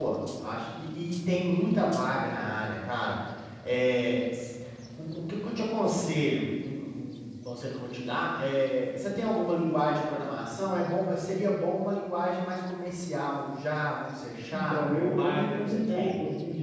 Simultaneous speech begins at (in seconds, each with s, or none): 14.5 s